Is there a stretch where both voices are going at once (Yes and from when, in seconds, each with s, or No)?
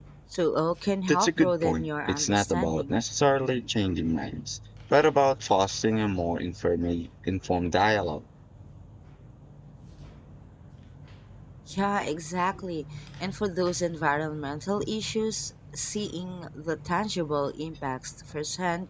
Yes, from 1.1 s